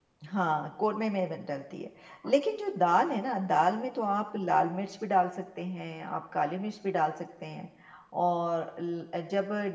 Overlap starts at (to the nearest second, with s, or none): none